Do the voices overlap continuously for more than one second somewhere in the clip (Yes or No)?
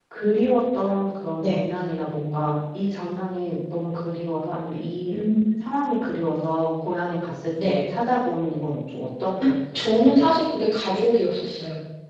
No